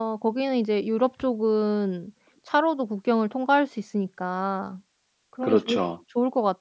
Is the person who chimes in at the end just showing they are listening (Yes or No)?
Yes